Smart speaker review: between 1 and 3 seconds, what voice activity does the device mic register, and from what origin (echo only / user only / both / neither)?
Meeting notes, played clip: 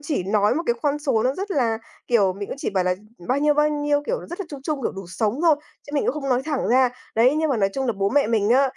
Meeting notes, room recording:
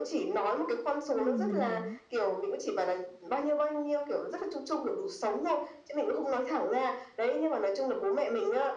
both